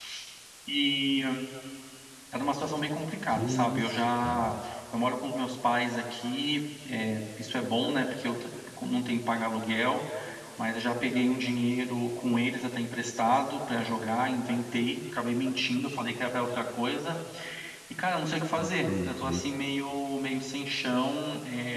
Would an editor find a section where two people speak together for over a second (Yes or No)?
Yes